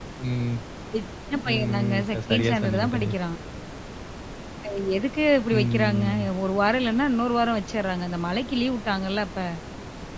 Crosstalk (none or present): present